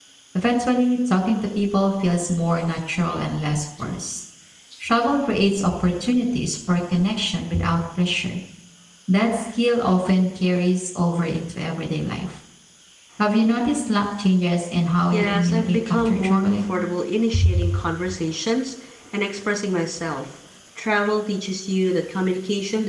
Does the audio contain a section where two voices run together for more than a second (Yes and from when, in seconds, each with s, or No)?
Yes, from 15.1 s